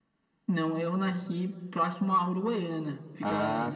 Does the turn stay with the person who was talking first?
Yes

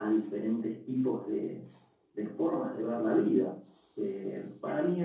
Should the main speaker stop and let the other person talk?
No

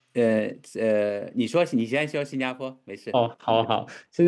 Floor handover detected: Yes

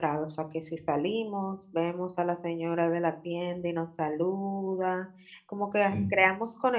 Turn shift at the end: No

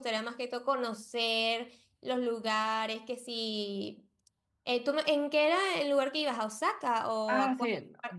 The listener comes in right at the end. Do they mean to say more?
Yes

